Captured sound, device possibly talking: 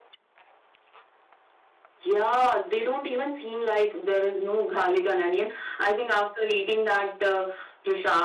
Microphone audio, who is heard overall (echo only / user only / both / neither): echo only